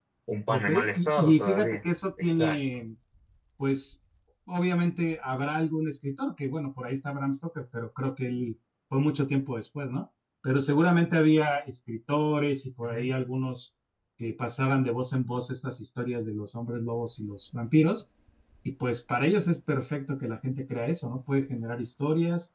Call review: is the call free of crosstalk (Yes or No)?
No